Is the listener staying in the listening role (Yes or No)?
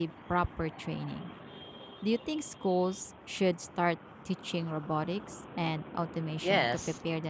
No